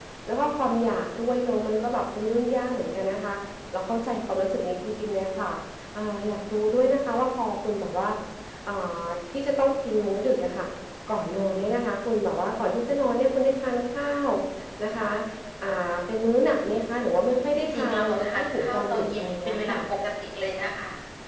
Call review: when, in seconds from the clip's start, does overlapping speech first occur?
18 s

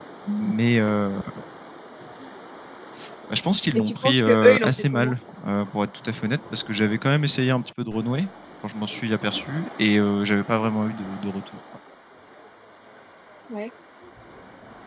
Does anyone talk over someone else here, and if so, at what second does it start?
4 s

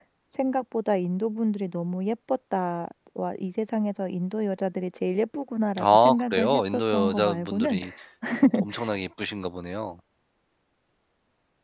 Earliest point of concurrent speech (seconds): 6 s

